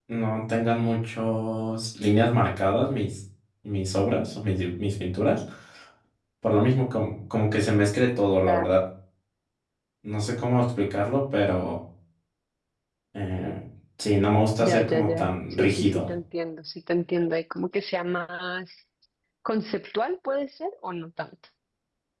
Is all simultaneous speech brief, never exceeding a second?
No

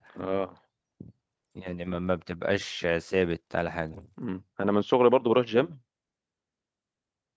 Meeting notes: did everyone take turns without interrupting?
Yes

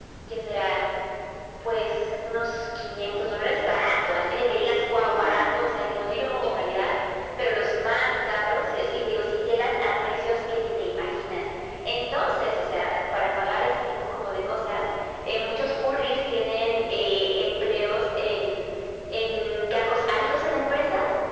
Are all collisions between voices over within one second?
No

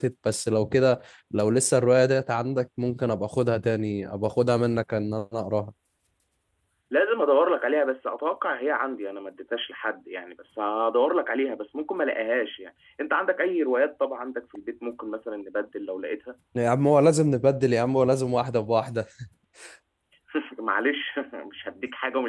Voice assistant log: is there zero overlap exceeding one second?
Yes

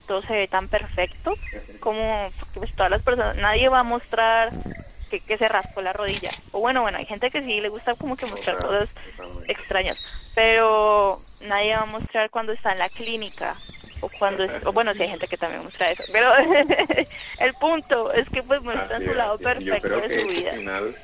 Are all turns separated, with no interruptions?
No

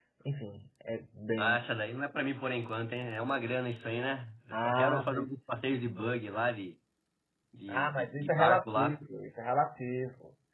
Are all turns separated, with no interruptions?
No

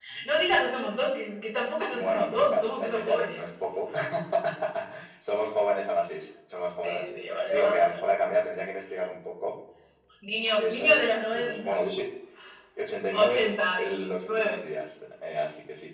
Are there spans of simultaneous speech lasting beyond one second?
Yes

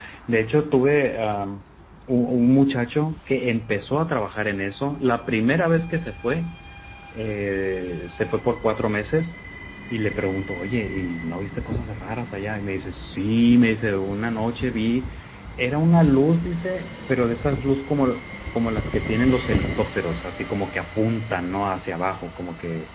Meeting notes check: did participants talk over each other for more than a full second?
No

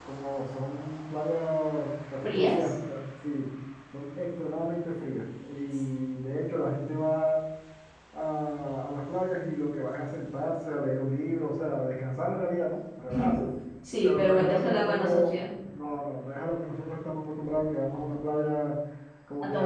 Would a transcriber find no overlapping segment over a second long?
No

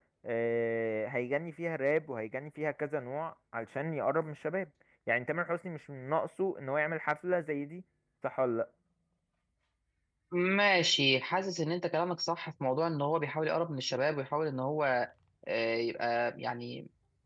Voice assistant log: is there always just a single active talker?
Yes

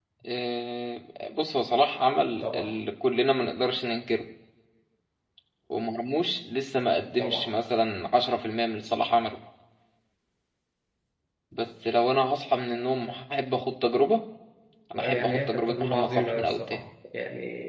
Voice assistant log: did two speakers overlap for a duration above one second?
Yes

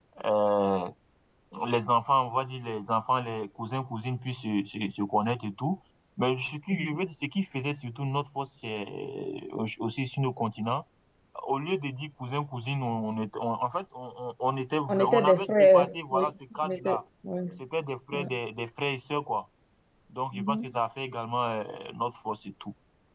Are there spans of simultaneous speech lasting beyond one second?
Yes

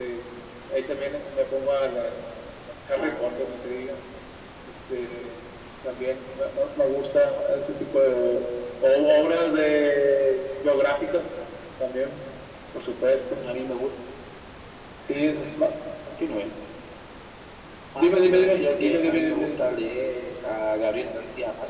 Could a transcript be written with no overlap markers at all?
No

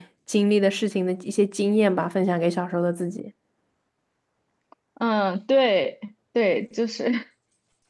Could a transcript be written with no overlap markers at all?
Yes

